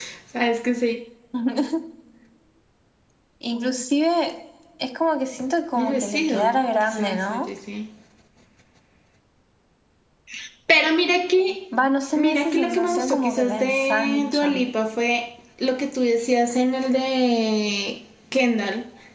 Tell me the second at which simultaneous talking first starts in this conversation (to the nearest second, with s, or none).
6 s